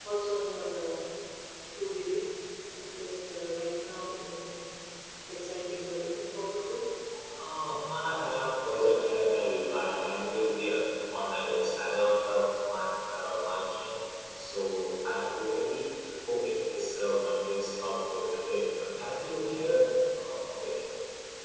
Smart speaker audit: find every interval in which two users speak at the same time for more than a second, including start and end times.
none

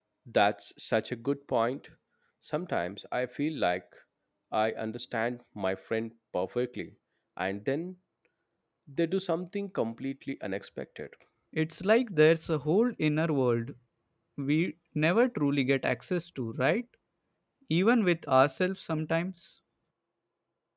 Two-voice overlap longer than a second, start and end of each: none

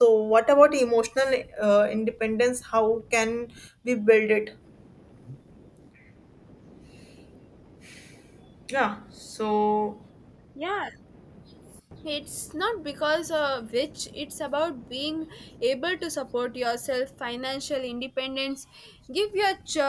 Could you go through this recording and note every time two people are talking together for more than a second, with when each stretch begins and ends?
none

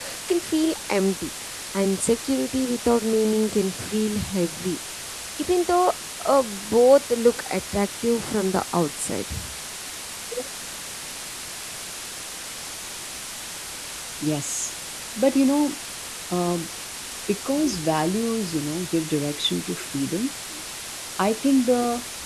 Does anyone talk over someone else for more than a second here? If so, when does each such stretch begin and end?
none

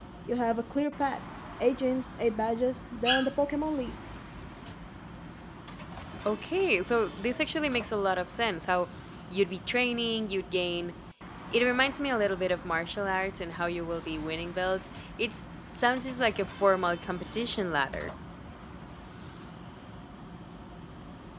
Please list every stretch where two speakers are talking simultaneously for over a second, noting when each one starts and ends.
none

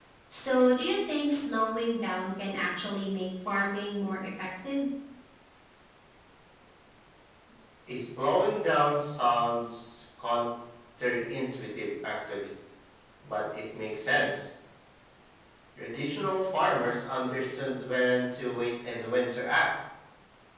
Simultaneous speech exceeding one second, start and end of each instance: none

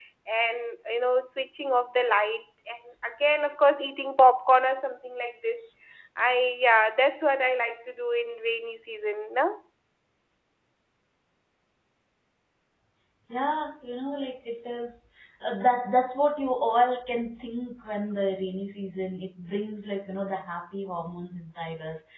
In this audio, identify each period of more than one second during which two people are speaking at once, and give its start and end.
none

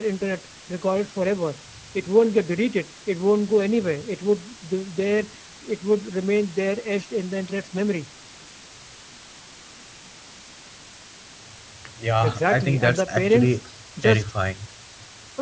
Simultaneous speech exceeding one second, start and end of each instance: 12.2-13.6

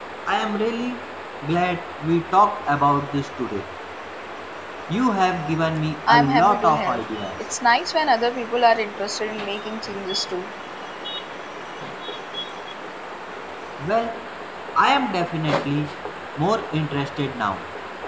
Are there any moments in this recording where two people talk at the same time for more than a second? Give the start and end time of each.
6.1-7.3

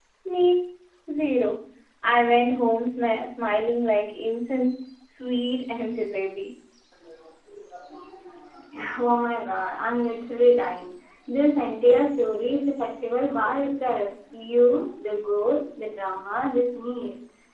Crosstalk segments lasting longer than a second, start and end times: none

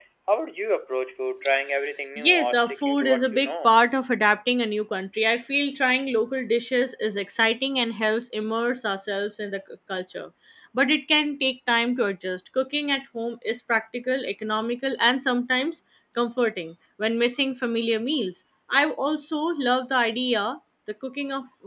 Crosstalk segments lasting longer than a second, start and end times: 2.2-3.7

